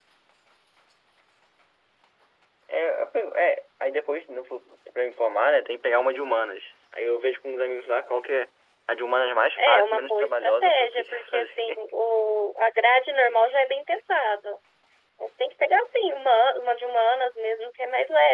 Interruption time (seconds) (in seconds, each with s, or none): 9.7 s